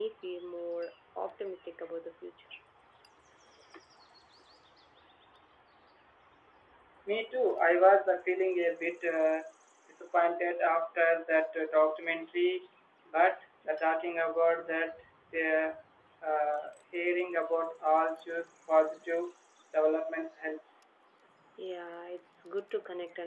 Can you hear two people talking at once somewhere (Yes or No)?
No